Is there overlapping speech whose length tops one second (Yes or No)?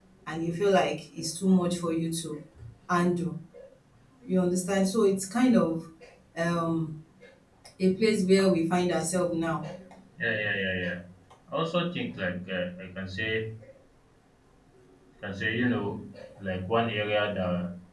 No